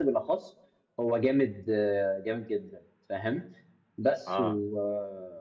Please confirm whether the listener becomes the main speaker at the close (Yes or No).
No